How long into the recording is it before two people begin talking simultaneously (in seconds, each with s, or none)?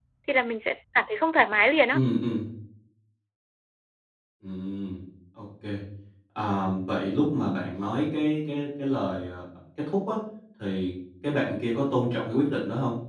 none